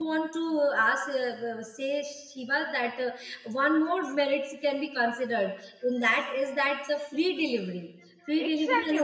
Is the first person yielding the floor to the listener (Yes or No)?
Yes